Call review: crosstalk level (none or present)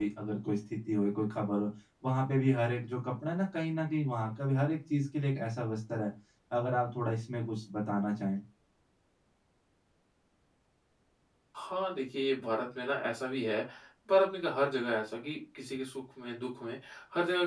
none